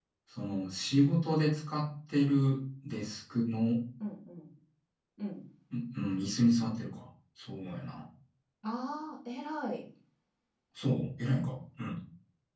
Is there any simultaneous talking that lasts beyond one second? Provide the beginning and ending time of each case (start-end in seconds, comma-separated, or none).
none